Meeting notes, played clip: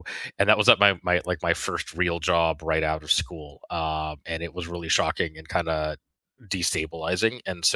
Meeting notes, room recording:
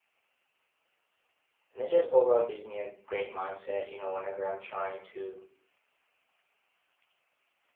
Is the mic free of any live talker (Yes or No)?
No